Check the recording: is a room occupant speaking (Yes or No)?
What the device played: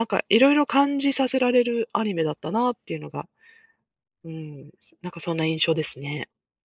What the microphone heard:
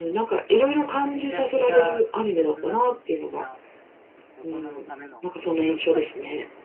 Yes